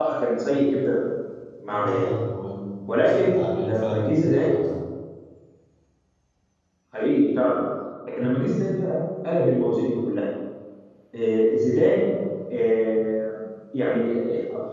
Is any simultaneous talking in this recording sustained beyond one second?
Yes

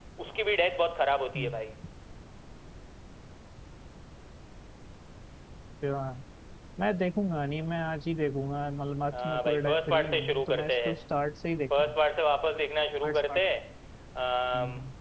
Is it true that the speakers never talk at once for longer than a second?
No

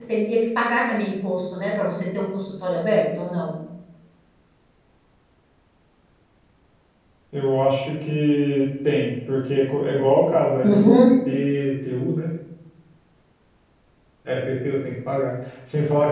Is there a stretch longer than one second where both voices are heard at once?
No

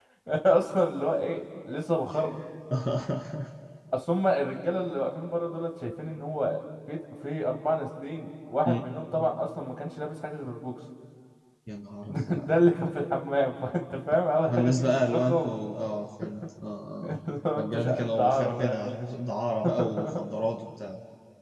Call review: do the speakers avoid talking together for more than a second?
No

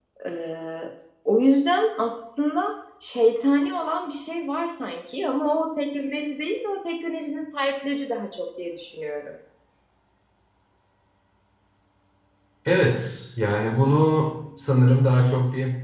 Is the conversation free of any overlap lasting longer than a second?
Yes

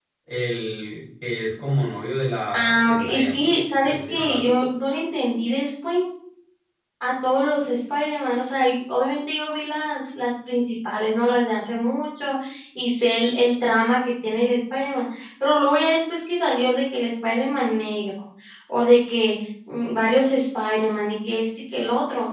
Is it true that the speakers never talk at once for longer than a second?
No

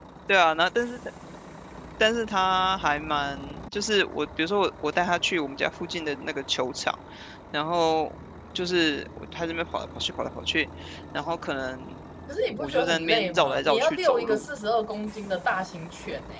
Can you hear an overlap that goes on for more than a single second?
Yes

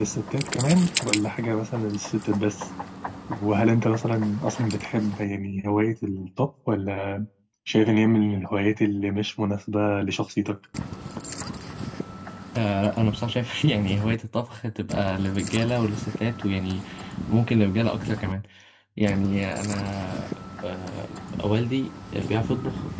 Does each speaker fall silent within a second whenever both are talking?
Yes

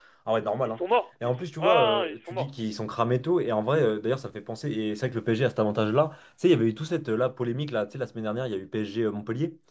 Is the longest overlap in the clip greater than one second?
Yes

